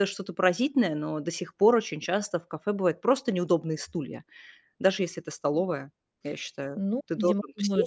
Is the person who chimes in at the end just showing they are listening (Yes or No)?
No